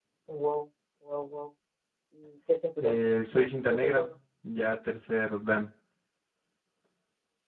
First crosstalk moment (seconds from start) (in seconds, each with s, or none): 2.8 s